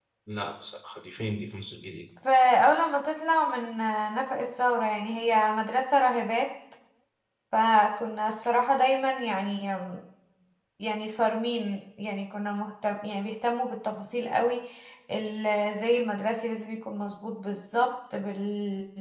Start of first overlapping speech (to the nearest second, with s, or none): none